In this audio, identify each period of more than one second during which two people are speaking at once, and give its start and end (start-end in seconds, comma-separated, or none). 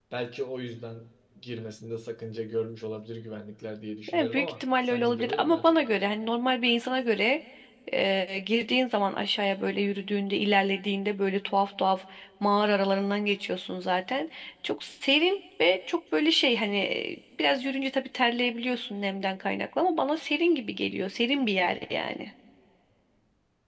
4.1-5.8